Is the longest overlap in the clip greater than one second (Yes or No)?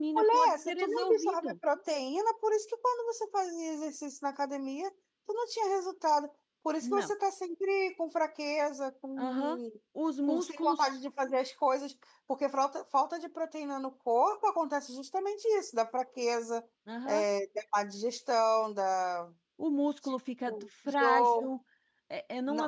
Yes